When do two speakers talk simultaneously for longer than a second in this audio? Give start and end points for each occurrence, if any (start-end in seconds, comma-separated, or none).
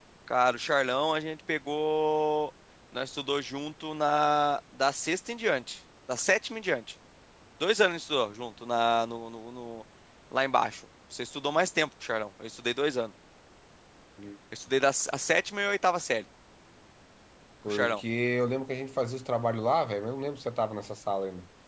none